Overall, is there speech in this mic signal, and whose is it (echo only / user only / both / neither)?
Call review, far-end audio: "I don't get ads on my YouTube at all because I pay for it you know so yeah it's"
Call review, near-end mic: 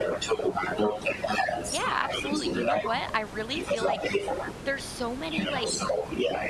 both